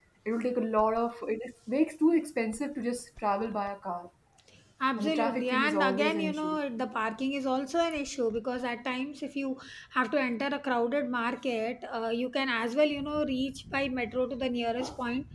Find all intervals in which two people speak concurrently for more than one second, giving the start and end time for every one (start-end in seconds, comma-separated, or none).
5.0-6.6